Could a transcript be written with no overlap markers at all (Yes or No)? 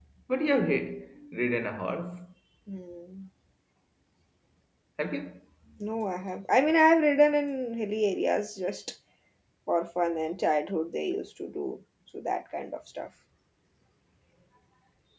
Yes